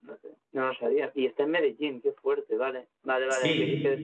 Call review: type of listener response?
listening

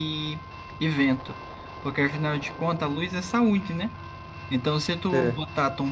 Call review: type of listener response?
listening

